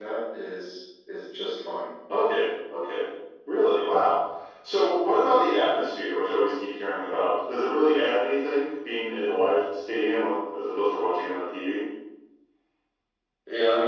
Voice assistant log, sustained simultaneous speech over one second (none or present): none